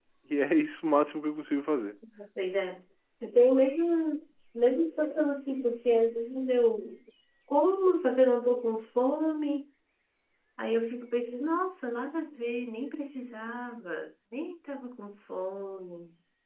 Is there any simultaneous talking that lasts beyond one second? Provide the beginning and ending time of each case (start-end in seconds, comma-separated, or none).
none